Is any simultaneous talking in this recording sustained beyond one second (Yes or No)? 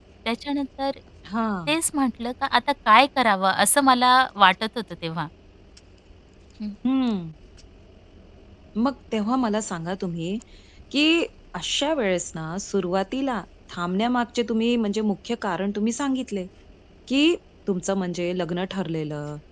No